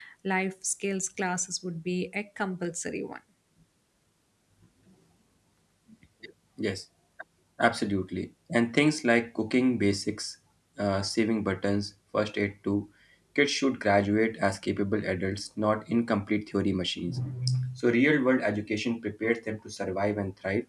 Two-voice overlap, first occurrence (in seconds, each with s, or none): none